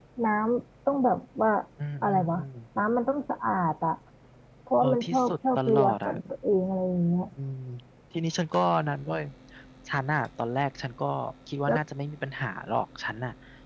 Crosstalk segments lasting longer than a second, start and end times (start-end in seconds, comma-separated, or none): 4.8-6.2